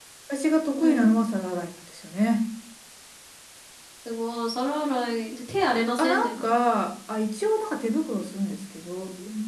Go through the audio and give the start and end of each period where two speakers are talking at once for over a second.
none

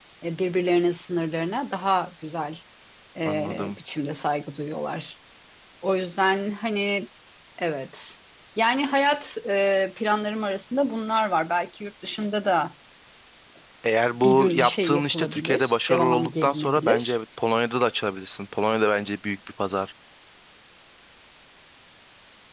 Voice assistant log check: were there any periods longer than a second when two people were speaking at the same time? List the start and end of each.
14.2-17.2

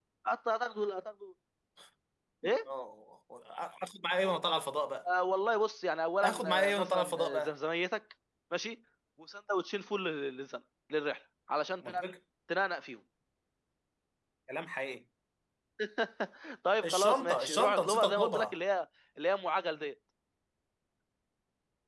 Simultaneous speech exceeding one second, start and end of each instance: 6.2-7.5, 16.8-18.6

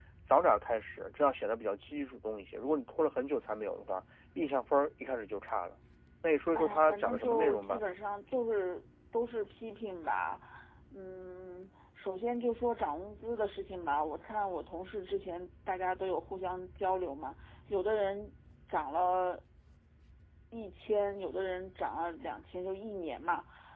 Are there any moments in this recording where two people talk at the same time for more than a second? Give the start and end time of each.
6.5-7.8

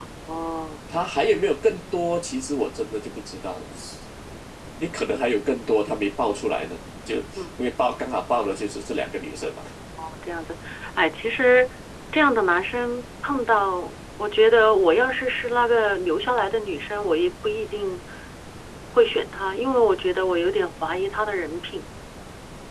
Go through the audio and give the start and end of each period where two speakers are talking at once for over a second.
none

